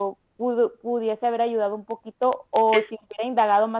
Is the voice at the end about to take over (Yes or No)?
No